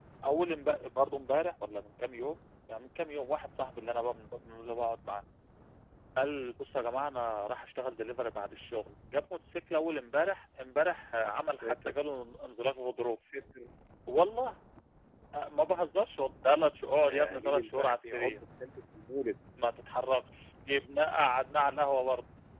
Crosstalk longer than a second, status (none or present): present